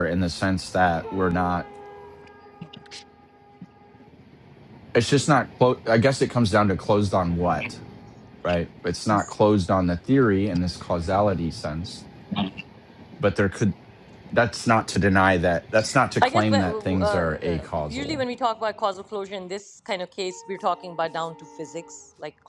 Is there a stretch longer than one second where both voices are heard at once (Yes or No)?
Yes